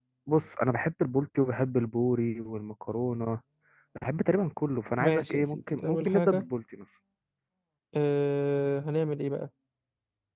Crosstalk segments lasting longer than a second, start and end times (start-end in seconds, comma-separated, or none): 5.0-6.5